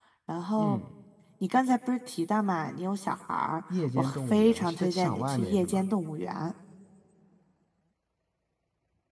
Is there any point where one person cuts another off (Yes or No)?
Yes